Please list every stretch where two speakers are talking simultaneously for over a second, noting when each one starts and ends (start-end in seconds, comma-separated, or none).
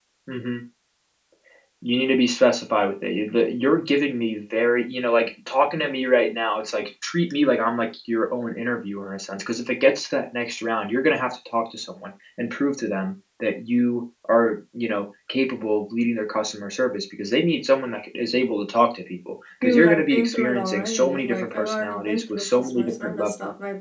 19.6-23.3